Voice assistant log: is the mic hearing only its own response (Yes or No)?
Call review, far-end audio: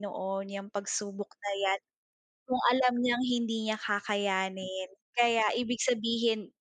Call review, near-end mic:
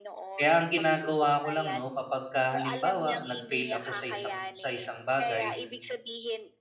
No